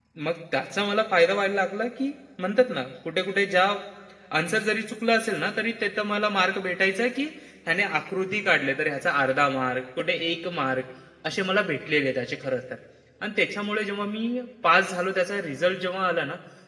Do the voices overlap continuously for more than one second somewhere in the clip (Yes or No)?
No